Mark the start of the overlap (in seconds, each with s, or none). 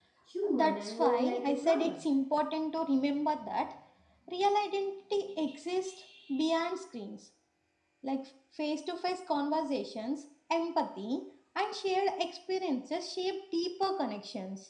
0.5 s